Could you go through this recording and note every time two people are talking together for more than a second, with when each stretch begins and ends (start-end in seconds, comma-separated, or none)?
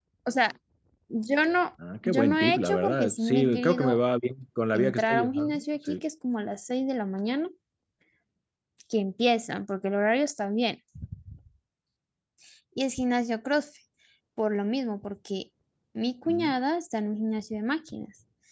2.0-4.0, 4.7-6.0